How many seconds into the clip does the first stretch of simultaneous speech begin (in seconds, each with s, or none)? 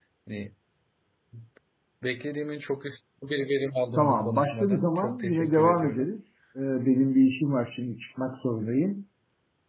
4.0 s